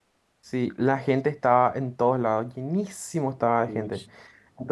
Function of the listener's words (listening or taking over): listening